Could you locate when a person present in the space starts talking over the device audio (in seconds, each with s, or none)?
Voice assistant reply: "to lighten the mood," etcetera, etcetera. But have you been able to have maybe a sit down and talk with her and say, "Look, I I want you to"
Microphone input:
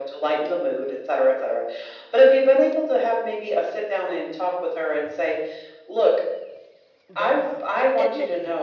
7.1 s